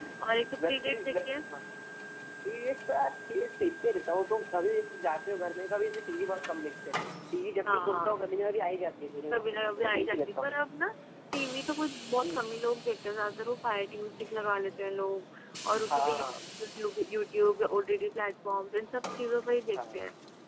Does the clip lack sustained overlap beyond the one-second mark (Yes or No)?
No